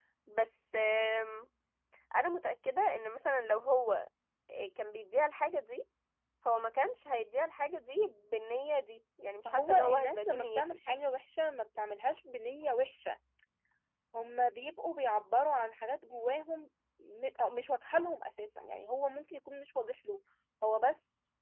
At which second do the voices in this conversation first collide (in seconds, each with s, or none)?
9.4 s